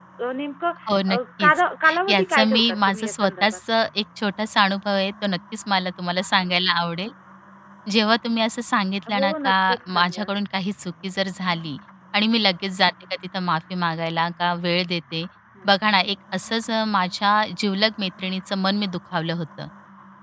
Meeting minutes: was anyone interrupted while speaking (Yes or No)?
Yes